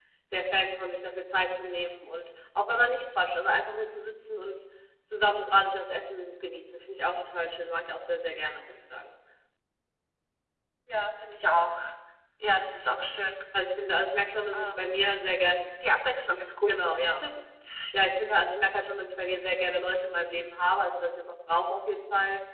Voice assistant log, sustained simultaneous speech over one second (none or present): none